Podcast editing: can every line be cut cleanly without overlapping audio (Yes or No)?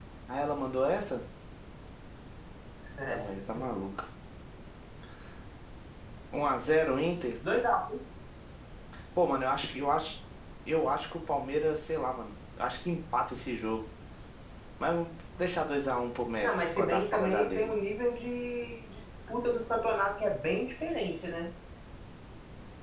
No